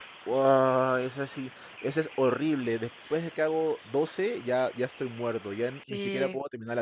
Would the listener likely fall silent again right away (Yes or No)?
No